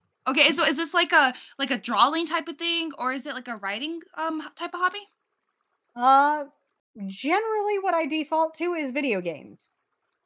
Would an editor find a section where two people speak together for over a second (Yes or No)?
No